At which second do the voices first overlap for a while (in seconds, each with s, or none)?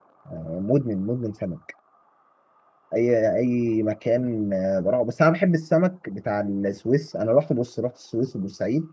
none